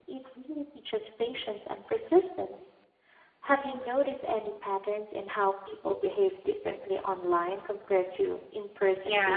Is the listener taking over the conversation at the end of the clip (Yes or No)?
Yes